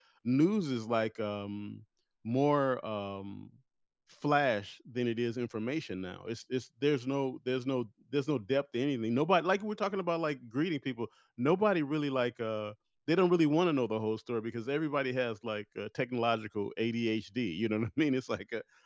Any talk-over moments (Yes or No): No